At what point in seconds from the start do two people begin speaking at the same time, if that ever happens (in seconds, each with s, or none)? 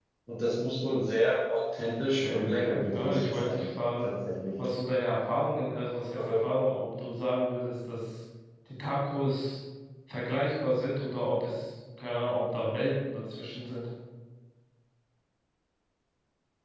1.8 s